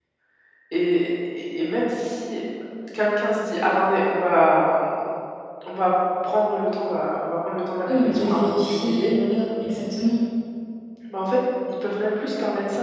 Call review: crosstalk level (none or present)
present